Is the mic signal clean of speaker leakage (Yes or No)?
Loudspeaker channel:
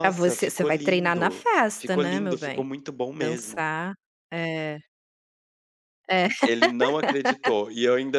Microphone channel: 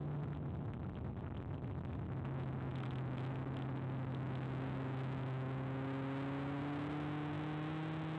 Yes